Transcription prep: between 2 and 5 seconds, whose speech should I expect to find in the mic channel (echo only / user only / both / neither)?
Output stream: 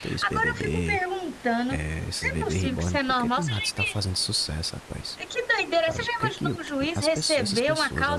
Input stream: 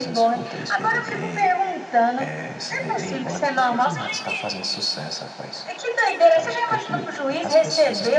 echo only